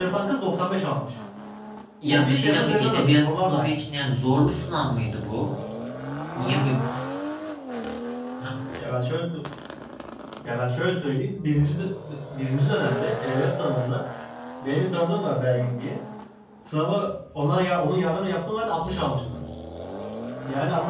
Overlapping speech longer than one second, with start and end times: 2.1-3.8

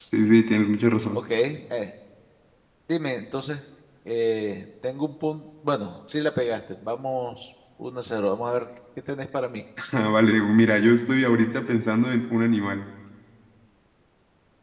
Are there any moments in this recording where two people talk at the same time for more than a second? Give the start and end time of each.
none

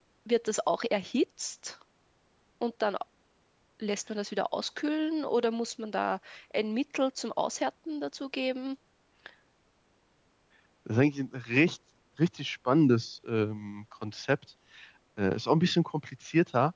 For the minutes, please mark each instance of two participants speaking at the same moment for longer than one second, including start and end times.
none

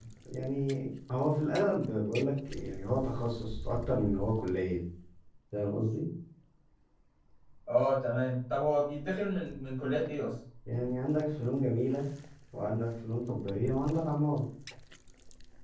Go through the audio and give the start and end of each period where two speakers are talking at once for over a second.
none

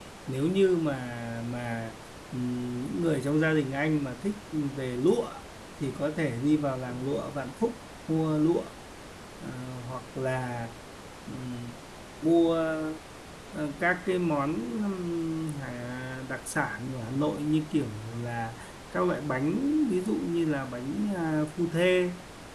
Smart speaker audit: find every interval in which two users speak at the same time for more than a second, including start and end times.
none

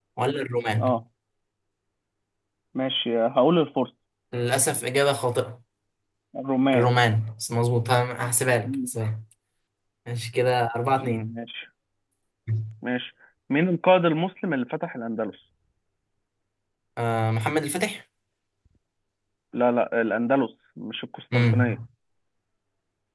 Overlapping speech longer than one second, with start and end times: none

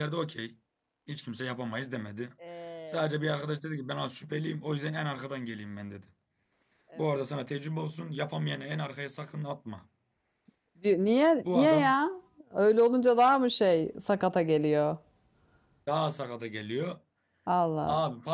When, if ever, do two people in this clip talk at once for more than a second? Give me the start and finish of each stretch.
none

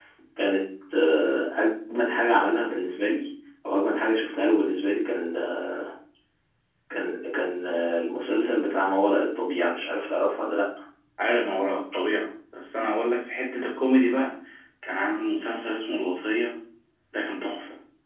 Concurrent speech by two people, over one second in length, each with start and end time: none

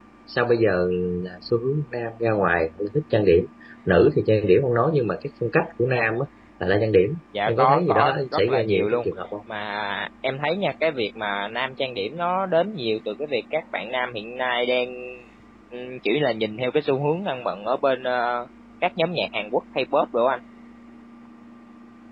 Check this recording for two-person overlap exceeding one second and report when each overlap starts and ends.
7.5-9.1

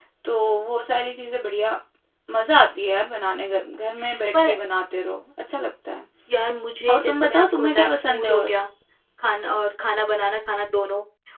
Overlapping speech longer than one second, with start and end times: 6.9-8.5

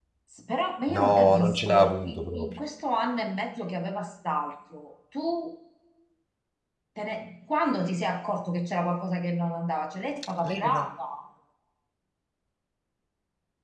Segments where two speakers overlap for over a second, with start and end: 0.9-2.5

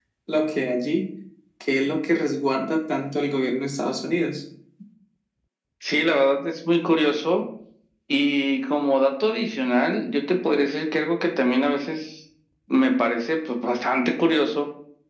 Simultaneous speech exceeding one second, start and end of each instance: none

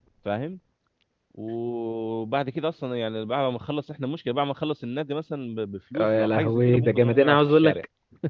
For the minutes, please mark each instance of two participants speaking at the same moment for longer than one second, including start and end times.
6.0-7.8

